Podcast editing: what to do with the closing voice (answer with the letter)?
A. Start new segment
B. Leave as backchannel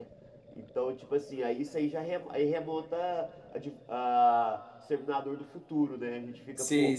B